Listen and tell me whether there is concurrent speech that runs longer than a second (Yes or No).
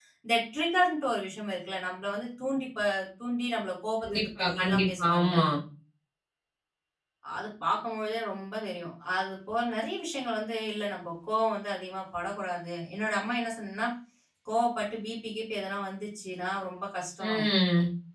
Yes